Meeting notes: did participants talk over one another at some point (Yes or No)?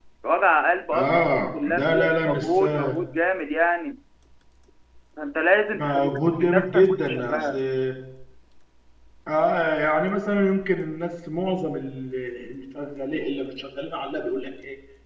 Yes